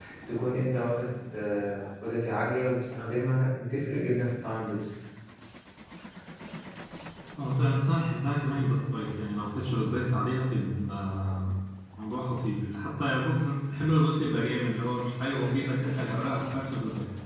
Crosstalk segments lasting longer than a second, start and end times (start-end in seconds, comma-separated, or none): none